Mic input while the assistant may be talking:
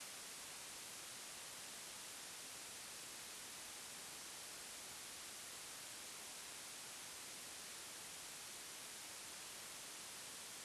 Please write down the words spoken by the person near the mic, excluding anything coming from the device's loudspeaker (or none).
none